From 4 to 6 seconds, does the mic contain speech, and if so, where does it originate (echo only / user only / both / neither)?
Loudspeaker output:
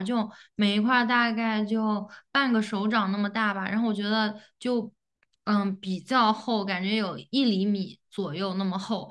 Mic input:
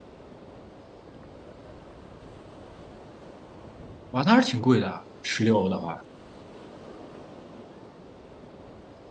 user only